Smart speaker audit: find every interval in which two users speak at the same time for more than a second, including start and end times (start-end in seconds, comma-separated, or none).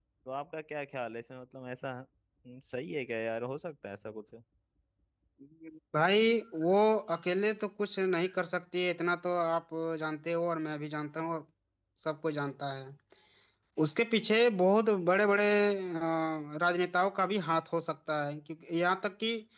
none